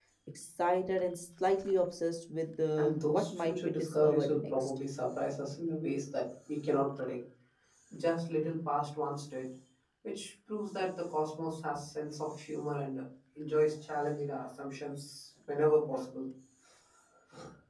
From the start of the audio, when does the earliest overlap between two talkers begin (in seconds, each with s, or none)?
2.8 s